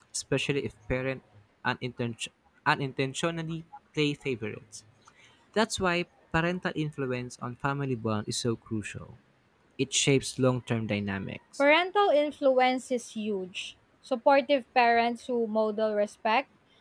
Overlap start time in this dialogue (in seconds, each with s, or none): none